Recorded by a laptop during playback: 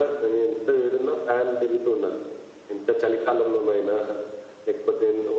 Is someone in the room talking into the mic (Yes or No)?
No